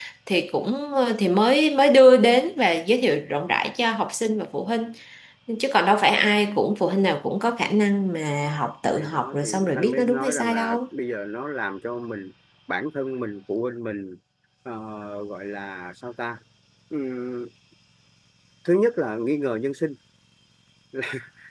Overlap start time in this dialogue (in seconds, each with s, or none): 9.0 s